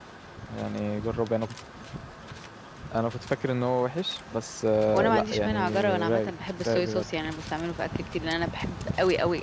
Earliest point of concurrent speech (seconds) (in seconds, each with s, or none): 4.9 s